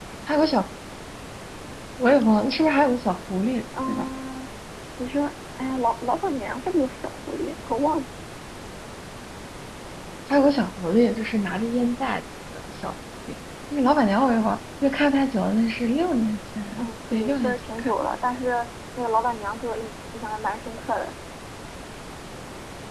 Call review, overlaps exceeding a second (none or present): present